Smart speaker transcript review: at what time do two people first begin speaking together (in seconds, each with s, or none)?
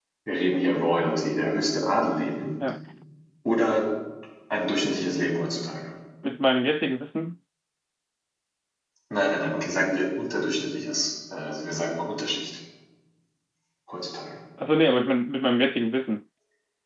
none